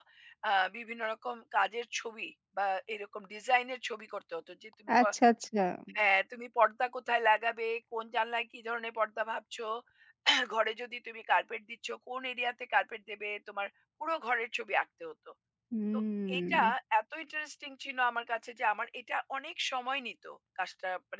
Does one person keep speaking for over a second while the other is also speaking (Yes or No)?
No